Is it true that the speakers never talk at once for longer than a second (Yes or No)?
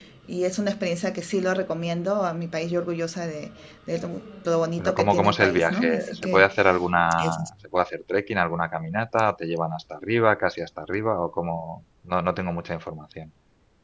No